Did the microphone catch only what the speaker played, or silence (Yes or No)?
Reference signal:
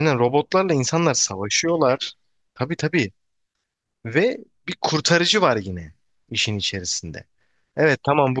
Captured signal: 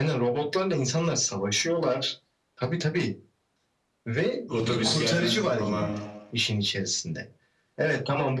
No